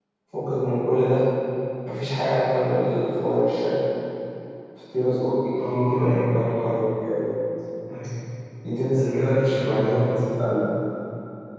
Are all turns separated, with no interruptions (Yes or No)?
No